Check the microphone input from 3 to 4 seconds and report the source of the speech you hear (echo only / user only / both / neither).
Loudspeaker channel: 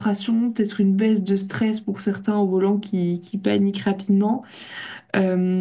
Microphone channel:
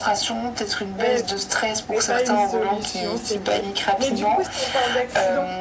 both